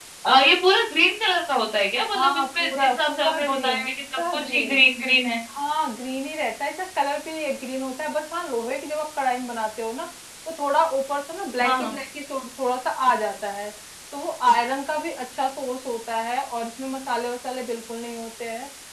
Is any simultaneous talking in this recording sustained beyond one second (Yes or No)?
Yes